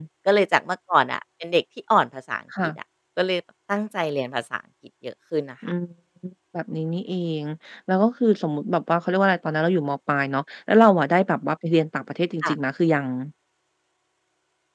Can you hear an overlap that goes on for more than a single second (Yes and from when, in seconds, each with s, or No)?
No